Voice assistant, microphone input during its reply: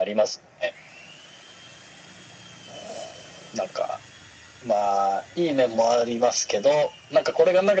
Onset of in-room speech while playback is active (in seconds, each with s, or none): none